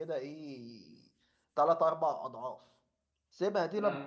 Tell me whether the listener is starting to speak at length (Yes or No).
No